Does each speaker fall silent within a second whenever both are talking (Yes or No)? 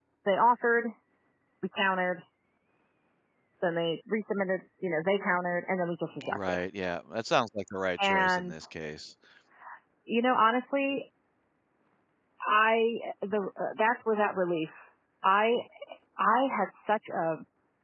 Yes